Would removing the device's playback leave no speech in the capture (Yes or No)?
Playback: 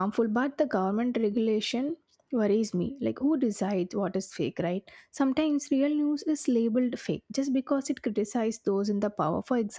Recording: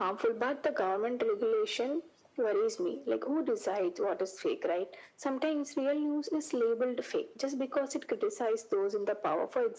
Yes